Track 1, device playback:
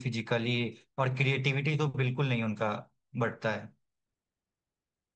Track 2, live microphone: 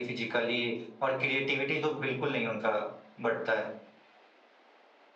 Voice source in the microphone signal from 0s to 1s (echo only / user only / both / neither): echo only